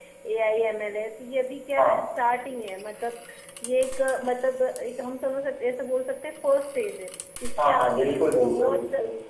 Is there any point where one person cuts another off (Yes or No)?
Yes